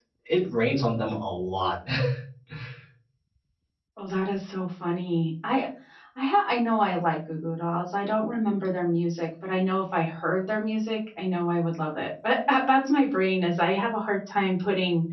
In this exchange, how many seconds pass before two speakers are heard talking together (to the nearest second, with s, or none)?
none